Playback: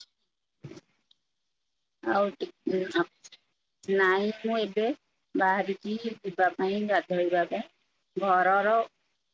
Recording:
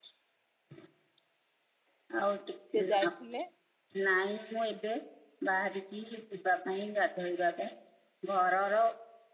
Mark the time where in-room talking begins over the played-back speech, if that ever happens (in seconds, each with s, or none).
2.7 s